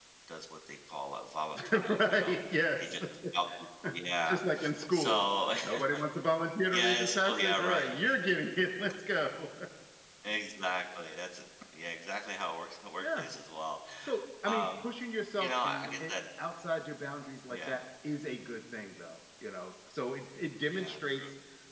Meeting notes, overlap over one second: present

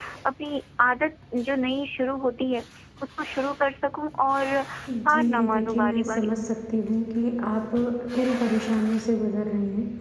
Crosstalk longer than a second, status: present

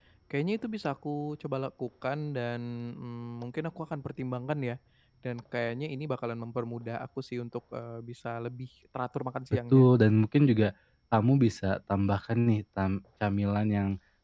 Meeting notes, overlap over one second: none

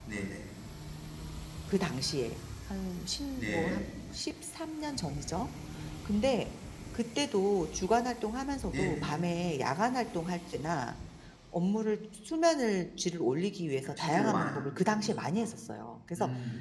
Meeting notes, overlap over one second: present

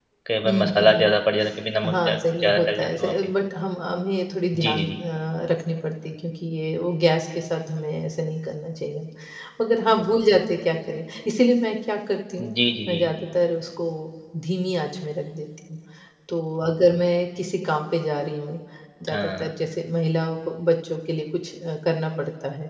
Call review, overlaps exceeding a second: present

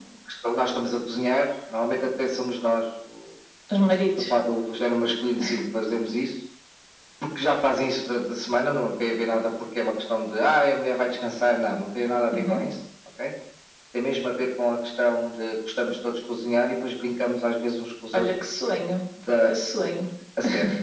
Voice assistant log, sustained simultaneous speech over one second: none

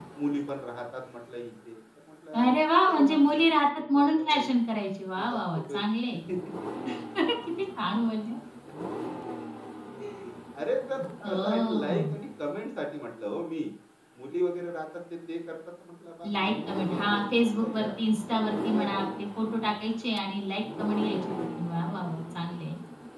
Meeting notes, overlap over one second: present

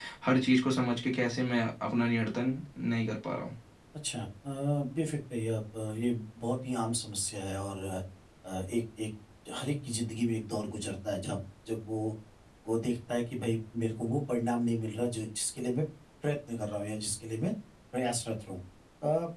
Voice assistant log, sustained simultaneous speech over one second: none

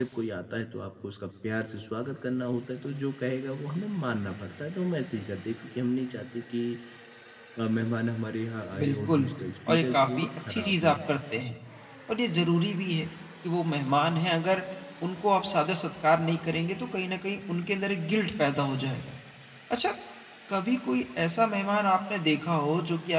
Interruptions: present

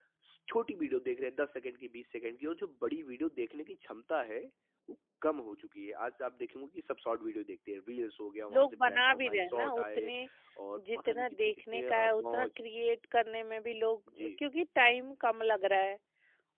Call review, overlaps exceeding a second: present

